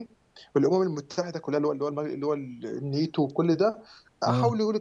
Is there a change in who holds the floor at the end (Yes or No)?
No